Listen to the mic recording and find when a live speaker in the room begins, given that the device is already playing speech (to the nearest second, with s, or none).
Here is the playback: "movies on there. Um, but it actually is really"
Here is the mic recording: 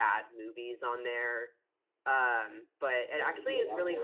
3 s